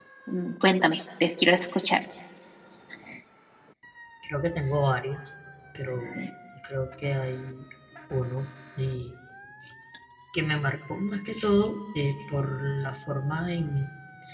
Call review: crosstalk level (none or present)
none